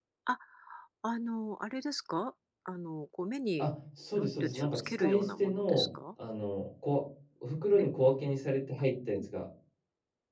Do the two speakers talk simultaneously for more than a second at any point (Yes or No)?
Yes